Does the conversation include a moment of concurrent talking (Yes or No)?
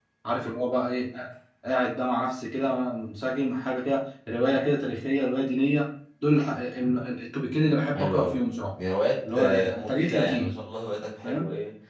Yes